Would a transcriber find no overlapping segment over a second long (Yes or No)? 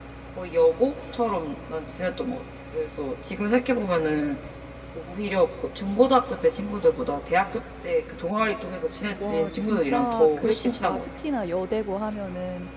No